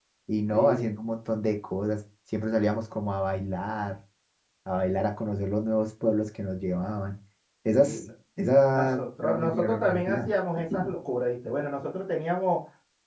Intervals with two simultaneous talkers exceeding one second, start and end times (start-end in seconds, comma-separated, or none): 8.7-10.3